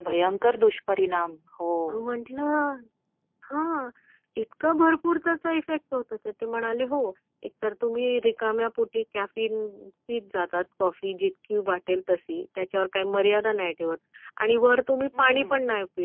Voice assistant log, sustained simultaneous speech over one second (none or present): none